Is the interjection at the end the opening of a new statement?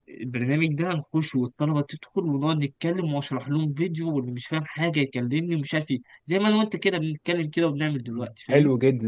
Yes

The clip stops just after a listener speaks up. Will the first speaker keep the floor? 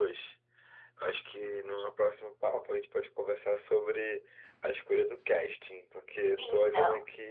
Yes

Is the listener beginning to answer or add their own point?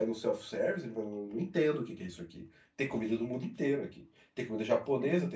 No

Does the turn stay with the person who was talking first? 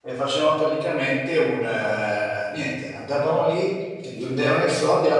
Yes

